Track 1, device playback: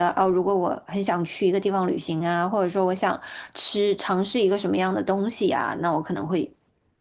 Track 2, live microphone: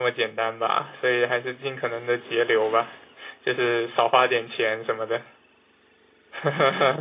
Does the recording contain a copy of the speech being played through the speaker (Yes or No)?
No